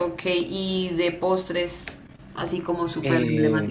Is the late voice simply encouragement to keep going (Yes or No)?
No